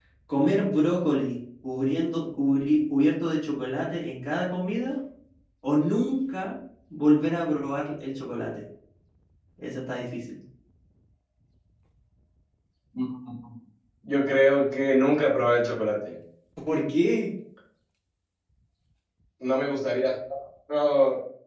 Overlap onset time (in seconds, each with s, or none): none